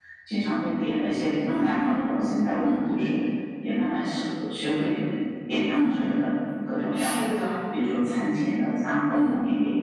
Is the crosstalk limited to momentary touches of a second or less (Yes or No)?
Yes